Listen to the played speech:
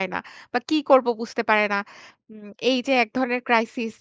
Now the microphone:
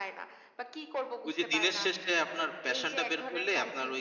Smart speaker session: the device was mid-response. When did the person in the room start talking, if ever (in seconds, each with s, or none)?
1.2 s